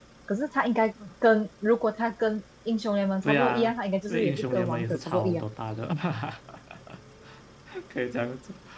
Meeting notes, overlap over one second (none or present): present